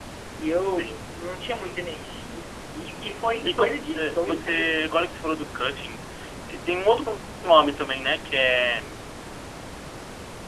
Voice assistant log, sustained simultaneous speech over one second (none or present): present